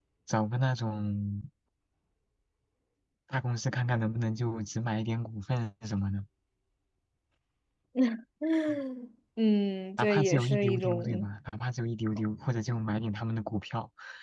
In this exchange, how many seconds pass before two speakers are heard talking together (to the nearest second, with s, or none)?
10 s